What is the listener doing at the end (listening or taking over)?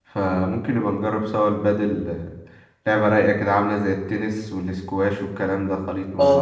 taking over